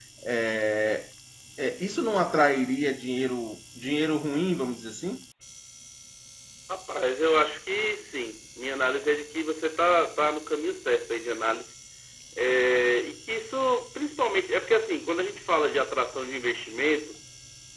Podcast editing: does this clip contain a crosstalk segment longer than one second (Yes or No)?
No